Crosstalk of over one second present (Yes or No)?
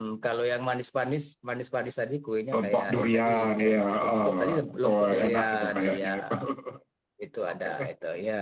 Yes